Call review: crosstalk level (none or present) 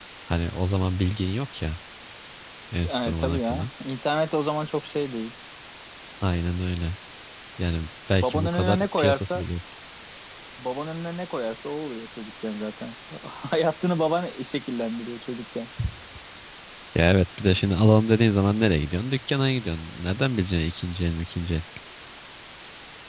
present